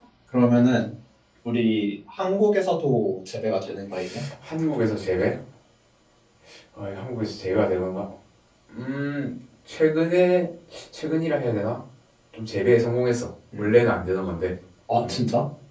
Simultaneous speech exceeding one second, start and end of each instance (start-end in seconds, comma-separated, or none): none